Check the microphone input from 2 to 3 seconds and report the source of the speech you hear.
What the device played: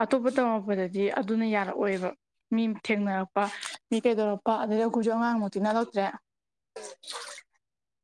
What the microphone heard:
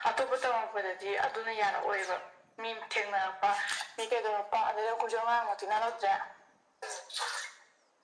echo only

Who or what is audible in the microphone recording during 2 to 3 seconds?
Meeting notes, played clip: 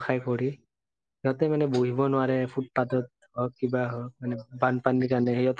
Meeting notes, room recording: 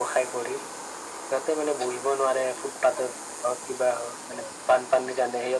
echo only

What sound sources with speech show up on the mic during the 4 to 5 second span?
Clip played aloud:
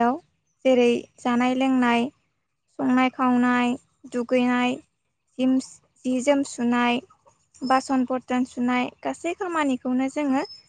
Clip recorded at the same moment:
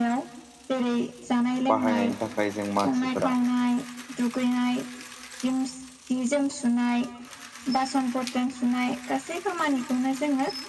echo only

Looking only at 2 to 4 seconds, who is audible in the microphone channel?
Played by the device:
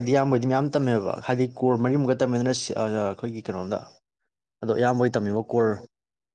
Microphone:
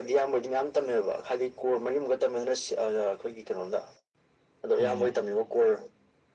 echo only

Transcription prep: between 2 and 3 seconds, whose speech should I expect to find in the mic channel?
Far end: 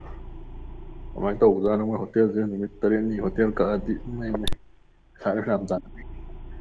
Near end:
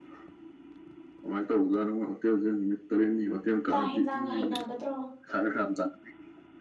echo only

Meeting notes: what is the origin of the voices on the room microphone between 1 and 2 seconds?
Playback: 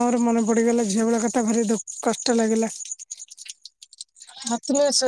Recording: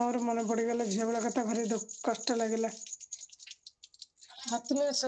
echo only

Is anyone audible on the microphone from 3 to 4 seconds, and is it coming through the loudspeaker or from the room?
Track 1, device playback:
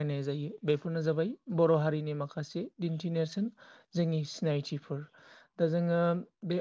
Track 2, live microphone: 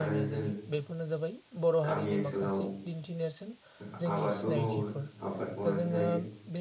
both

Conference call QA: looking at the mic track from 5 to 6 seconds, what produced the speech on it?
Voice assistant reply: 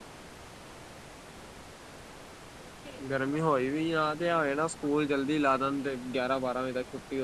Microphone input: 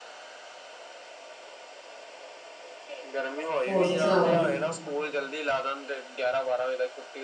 echo only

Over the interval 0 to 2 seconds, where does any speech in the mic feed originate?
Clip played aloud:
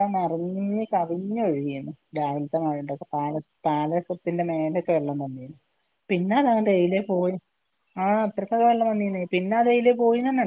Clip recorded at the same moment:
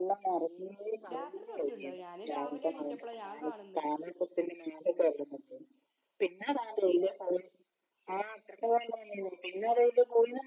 both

